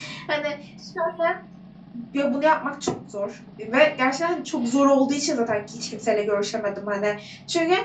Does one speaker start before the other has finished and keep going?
No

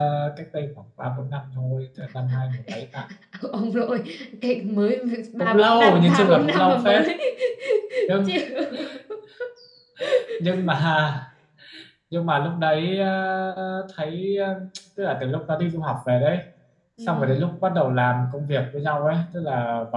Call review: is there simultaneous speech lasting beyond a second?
Yes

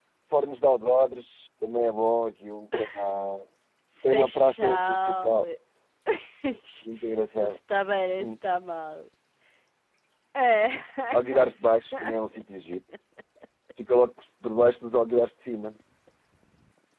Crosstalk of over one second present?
Yes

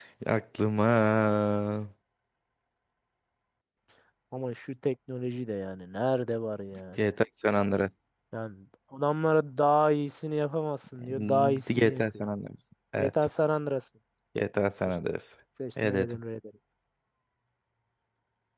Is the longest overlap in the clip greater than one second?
Yes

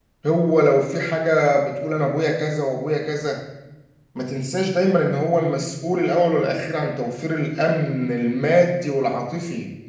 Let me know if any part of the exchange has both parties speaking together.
No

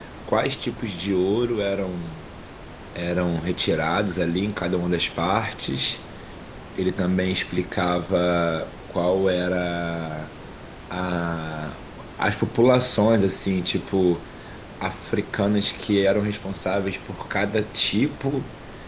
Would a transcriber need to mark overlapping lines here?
No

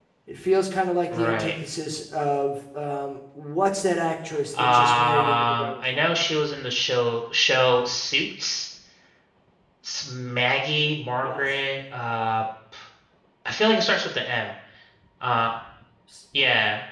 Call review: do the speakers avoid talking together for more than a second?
No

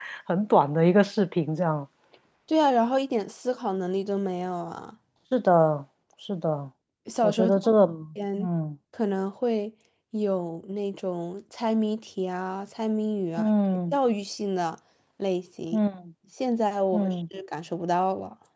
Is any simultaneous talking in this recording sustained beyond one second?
No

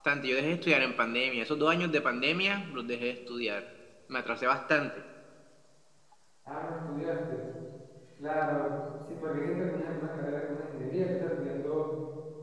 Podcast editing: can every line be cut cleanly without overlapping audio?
Yes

